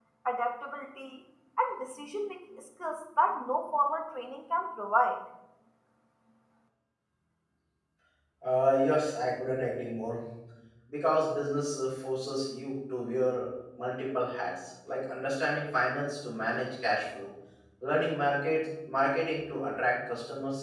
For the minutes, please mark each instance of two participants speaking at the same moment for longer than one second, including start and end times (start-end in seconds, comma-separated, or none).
none